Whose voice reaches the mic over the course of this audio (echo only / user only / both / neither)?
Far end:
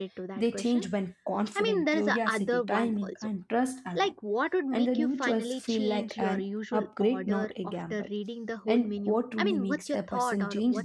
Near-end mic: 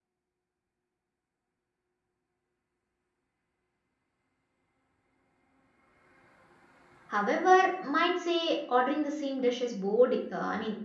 user only